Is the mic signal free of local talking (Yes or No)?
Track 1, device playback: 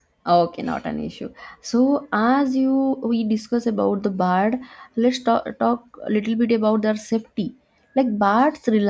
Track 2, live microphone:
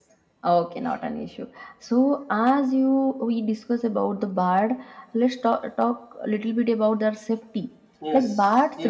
No